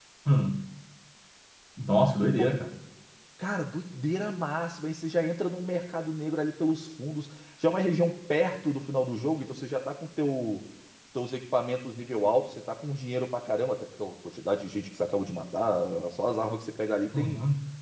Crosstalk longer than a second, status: none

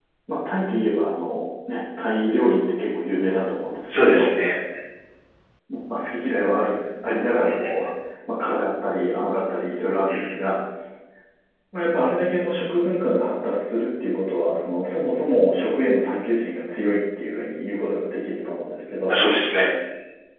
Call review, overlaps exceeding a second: none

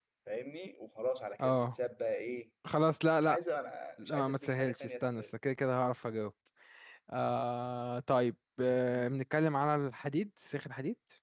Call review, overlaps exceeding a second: present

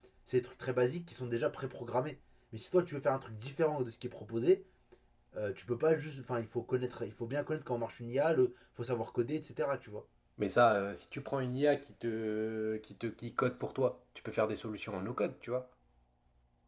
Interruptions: none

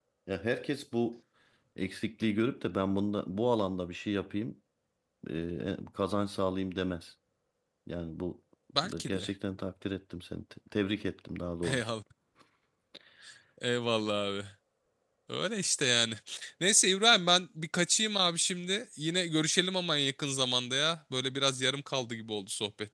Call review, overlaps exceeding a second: none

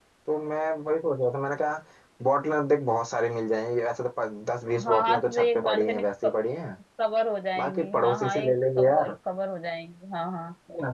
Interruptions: present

